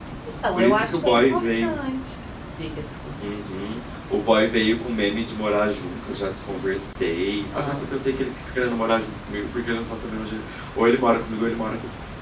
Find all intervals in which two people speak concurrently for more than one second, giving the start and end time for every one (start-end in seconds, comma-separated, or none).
0.6-1.8